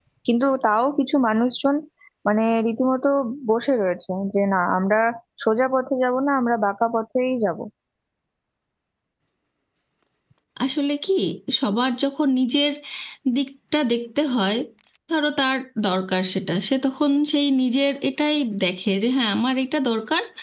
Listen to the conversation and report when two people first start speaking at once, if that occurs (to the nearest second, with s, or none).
none